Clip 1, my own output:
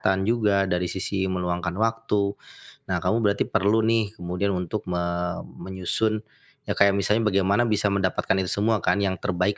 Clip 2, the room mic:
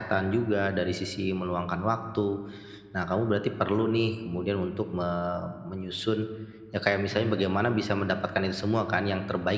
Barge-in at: 7 s

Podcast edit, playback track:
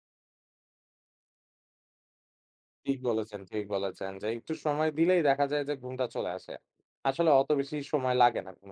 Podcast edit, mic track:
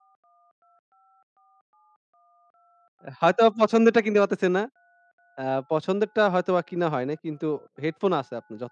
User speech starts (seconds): 3 s

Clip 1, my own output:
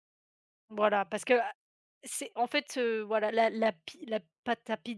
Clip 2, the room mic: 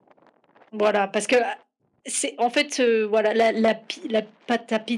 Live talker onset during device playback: none

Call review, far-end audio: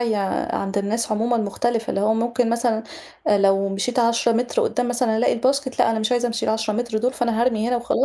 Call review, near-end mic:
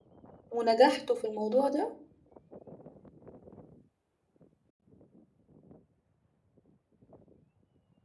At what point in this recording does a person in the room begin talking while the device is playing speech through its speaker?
0 s

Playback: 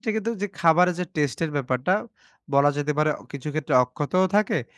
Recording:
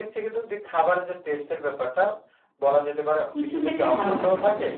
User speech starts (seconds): 3 s

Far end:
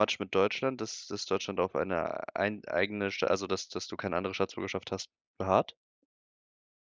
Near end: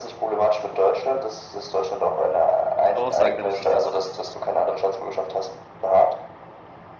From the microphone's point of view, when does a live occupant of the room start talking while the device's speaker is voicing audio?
3 s

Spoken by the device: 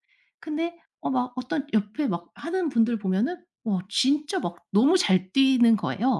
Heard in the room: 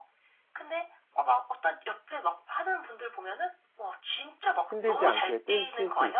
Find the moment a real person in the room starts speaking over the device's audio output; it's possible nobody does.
5 s

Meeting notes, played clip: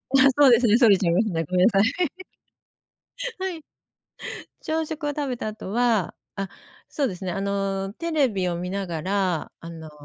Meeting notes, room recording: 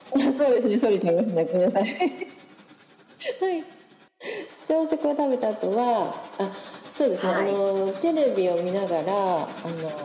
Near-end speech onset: 7 s

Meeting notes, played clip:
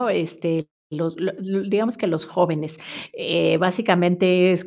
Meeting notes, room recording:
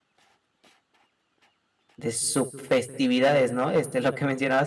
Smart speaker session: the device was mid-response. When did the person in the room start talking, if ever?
2 s

